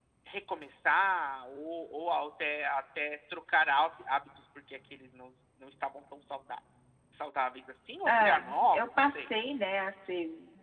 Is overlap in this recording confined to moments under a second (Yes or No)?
No